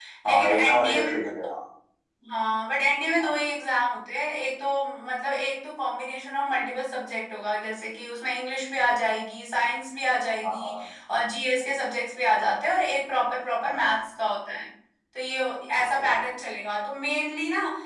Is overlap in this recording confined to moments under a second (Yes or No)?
No